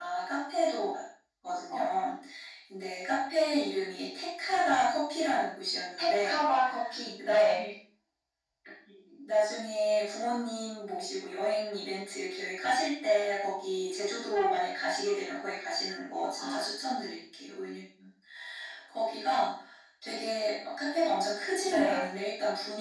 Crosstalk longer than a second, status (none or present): none